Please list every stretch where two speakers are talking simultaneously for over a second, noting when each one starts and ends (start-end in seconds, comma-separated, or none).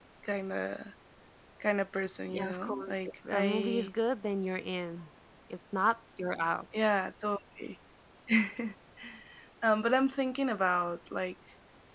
2.3-3.9